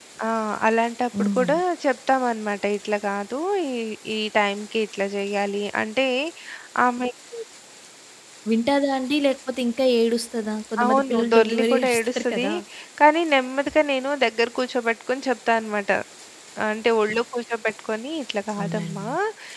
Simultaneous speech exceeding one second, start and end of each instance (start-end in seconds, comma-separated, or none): 10.8-12.5